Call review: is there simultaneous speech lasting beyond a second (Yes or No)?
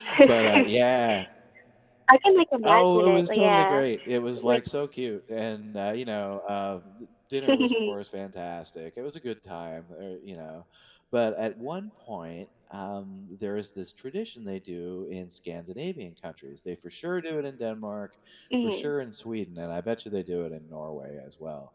Yes